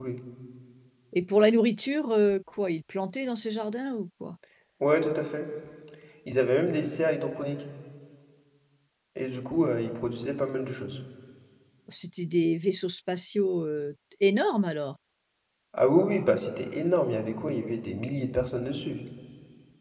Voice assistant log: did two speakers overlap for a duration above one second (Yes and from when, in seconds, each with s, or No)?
No